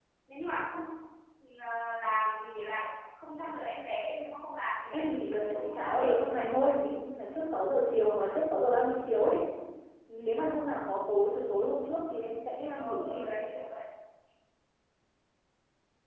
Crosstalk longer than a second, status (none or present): present